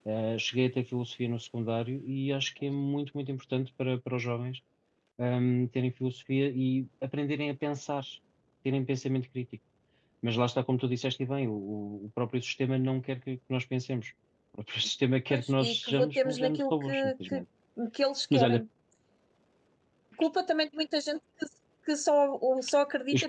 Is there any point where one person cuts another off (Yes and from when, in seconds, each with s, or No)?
Yes, from 15.3 s